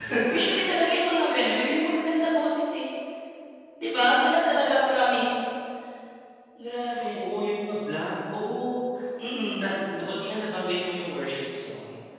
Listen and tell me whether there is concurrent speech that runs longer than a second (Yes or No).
No